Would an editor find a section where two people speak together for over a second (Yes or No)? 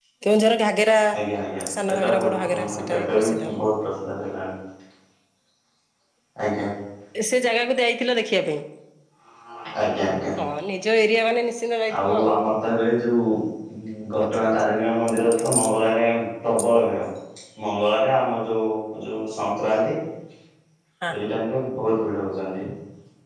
Yes